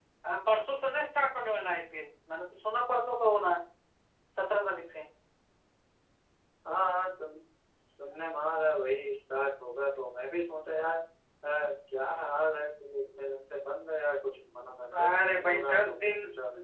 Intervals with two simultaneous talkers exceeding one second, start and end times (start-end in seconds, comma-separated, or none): 14.9-16.1